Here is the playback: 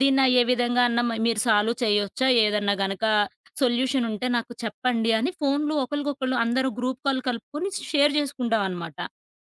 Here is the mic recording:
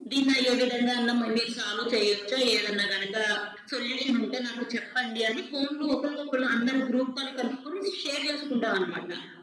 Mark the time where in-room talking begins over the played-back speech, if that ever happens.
none

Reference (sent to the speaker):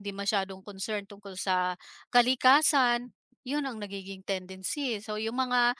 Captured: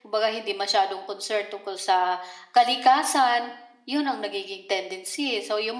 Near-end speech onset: none

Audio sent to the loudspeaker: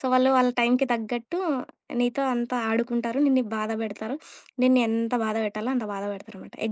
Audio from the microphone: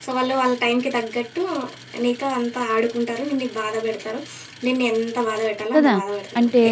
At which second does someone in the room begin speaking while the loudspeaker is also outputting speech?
5.8 s

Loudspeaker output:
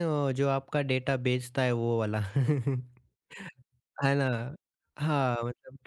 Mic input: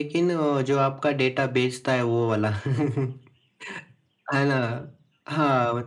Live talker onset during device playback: none

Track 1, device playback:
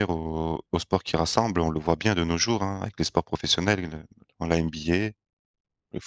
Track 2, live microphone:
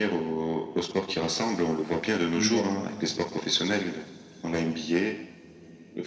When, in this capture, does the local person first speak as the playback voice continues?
2.4 s

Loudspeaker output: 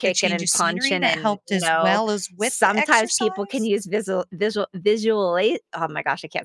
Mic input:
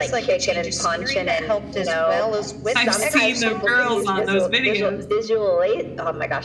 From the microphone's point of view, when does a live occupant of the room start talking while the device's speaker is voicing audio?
2.7 s

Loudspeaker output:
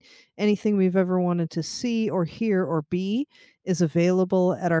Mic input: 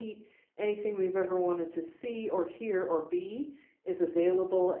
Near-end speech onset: none

